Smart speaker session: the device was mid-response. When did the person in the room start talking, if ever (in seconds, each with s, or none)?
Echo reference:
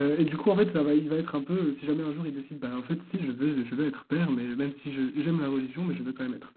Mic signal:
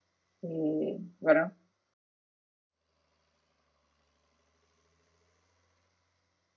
0.4 s